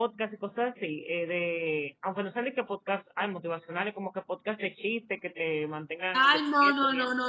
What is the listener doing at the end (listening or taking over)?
taking over